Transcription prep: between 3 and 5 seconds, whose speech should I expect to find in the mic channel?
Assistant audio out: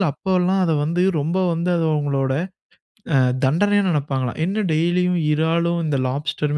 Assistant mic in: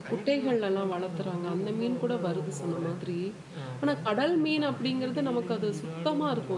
both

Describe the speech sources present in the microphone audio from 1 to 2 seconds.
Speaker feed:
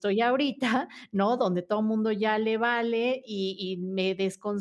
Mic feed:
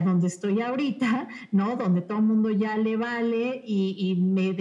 echo only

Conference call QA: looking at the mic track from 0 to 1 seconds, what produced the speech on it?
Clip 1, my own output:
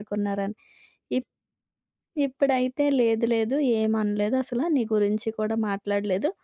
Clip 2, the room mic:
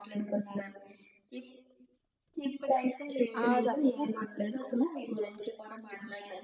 echo only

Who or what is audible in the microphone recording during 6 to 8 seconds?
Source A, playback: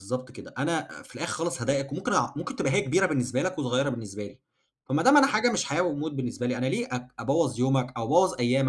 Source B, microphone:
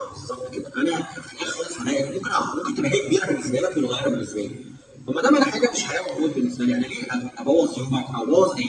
echo only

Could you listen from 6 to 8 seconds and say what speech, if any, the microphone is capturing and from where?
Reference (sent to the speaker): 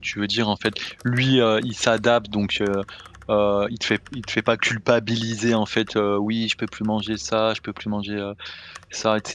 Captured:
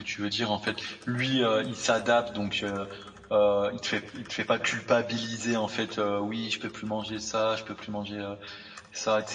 echo only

